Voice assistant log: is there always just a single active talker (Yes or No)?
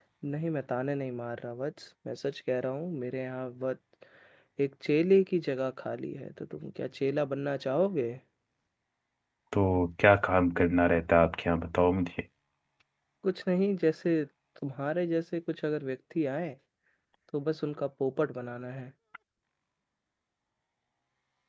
Yes